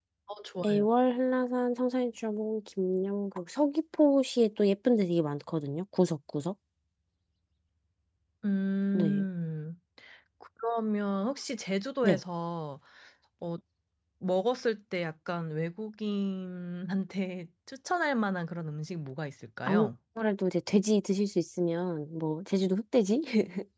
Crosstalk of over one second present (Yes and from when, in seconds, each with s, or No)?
No